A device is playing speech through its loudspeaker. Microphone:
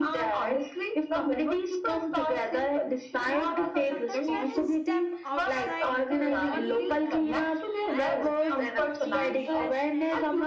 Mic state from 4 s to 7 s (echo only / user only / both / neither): both